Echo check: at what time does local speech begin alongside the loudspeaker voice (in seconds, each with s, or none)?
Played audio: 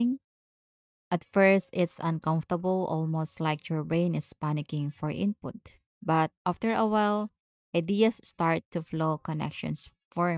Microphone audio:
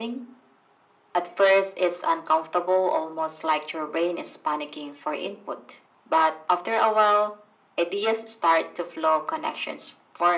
none